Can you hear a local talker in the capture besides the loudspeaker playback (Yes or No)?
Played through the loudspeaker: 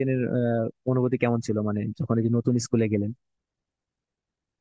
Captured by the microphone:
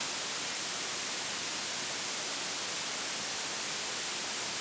No